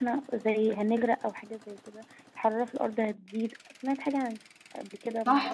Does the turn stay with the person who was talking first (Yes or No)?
No